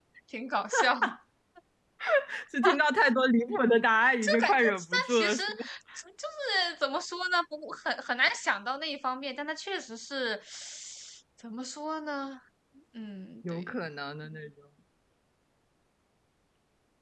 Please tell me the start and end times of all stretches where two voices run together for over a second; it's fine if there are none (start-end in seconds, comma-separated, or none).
4.2-5.6